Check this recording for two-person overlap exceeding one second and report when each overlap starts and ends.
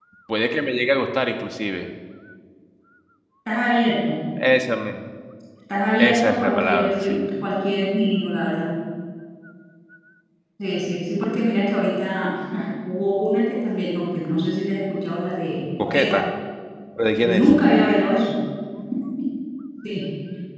6.0-7.2

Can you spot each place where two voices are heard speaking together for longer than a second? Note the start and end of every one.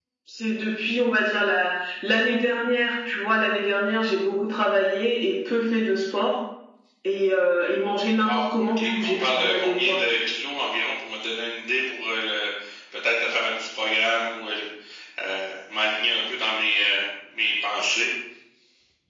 8.2-10.0

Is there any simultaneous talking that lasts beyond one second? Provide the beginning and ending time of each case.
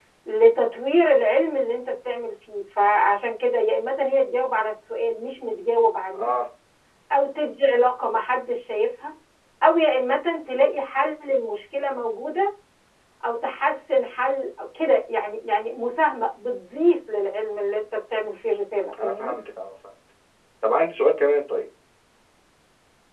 none

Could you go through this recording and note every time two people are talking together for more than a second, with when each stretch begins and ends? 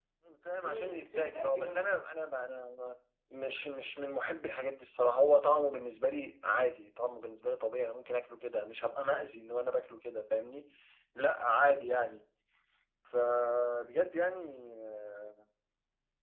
0.5-2.0

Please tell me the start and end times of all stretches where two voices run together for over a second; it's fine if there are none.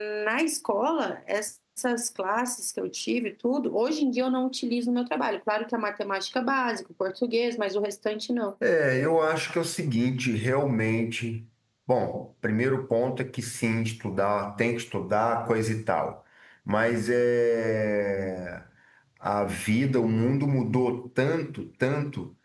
none

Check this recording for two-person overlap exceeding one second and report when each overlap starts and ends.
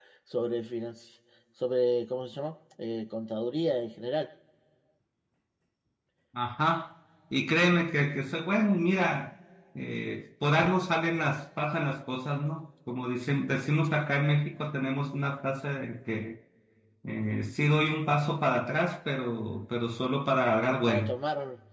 none

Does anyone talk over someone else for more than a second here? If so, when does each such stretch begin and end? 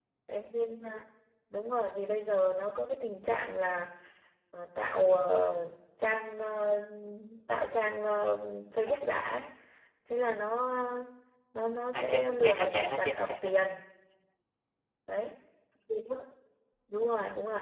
11.9-13.5

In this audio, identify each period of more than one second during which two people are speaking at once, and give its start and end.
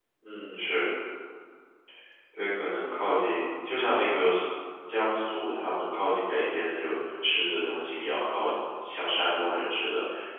none

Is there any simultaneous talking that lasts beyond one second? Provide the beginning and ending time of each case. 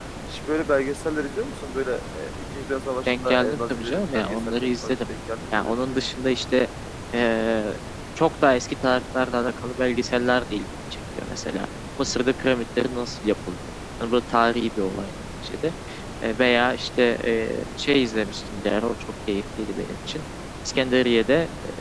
3.1-5.0

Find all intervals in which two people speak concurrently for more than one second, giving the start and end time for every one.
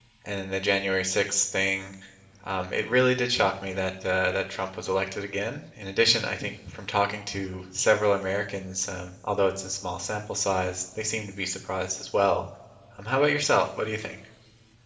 none

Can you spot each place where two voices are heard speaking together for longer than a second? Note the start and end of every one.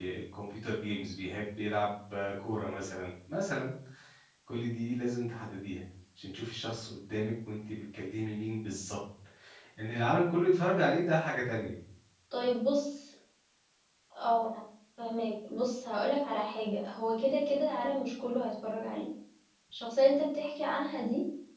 none

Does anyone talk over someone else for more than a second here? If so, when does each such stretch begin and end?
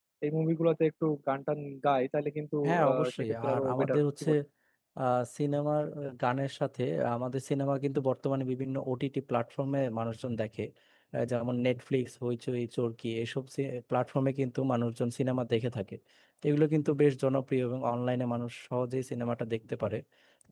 2.6-4.3

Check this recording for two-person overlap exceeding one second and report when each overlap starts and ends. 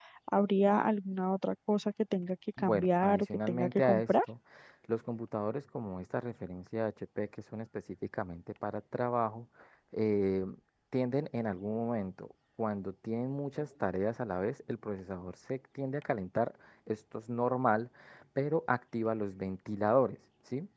2.6-4.1

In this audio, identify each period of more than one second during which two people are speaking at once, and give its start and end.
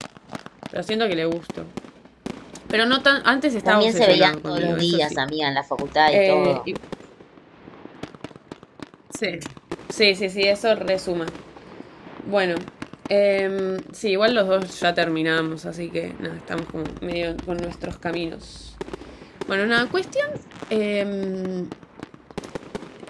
3.6-5.2

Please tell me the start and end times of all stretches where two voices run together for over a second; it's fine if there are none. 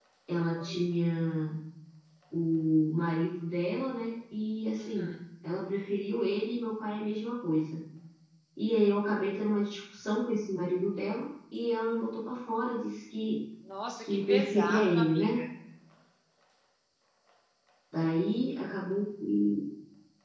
14.0-15.4

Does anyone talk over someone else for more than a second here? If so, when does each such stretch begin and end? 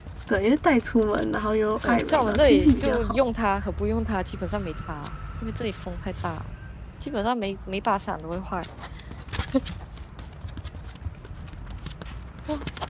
1.8-3.2

